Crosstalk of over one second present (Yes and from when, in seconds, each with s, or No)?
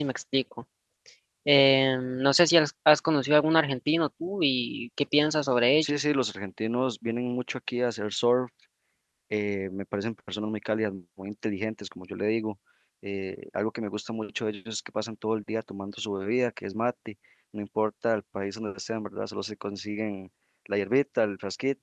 No